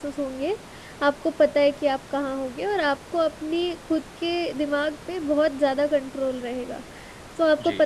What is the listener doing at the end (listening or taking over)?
listening